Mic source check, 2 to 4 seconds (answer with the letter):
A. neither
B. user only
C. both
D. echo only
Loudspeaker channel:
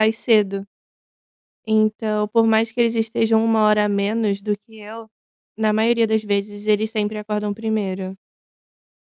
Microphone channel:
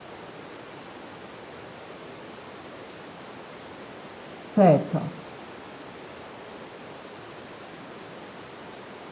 A